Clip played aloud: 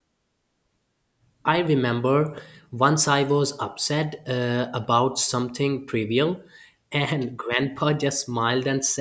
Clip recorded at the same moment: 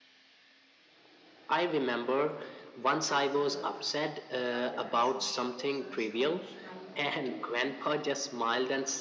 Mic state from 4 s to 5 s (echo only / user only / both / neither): both